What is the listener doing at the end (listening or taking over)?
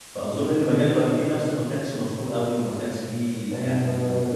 taking over